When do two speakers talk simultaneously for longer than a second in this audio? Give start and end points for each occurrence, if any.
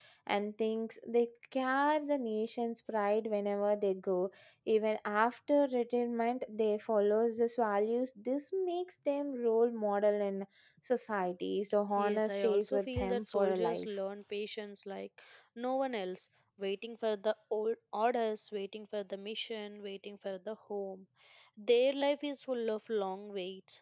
12.0-13.9

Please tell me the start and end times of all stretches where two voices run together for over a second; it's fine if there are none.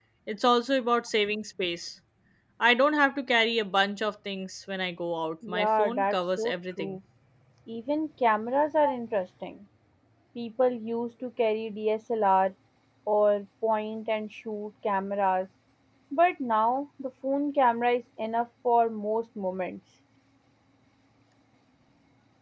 5.5-7.0

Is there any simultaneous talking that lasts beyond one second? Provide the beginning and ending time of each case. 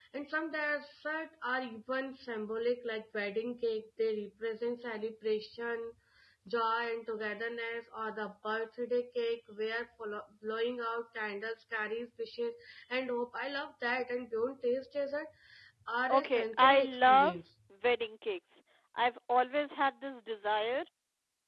16.1-17.4

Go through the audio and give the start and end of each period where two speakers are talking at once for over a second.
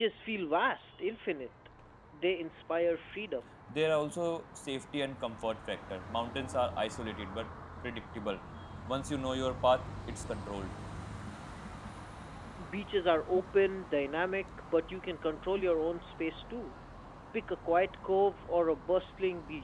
none

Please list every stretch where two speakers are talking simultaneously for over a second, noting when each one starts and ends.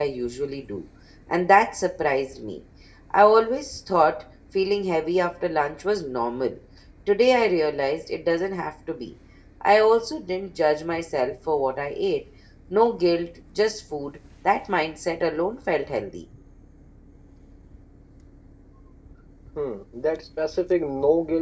none

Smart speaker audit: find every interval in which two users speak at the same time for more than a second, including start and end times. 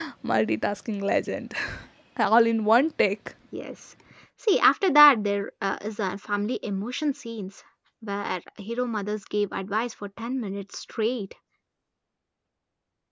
none

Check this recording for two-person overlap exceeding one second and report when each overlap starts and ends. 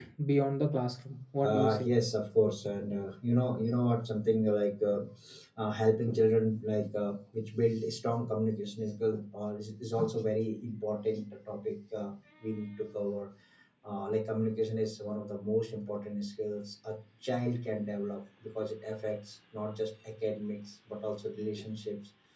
none

